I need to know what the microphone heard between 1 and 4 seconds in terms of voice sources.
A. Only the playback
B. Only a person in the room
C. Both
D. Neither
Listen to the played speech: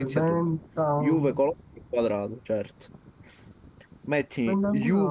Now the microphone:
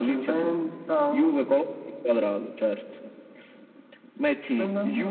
A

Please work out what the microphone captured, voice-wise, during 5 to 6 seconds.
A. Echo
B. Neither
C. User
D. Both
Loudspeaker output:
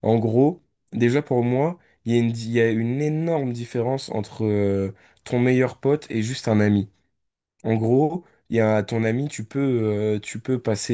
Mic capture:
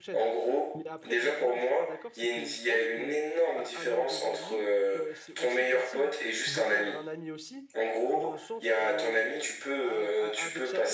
D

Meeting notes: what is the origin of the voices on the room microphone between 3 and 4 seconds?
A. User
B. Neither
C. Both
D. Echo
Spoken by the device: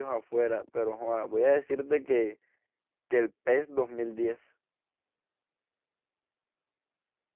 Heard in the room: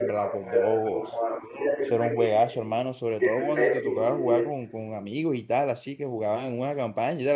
C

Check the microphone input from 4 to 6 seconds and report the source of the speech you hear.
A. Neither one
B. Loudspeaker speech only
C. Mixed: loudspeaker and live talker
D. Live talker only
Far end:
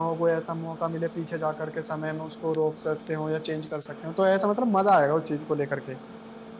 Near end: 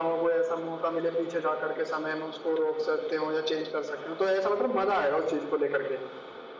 B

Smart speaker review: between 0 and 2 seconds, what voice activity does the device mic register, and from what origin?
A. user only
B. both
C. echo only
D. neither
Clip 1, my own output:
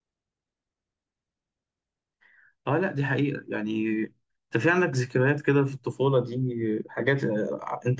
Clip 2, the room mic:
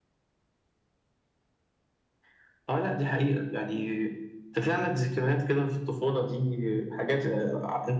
D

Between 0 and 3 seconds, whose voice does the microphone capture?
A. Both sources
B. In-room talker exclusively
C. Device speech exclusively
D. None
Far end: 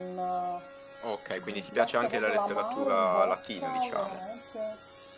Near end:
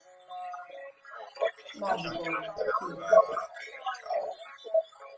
A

